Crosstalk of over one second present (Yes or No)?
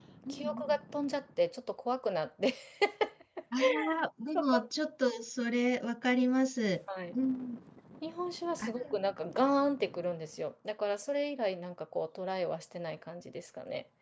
No